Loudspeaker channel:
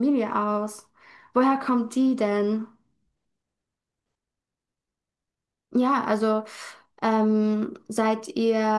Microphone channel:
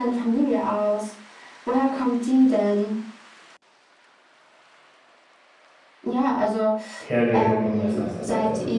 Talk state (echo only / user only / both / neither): both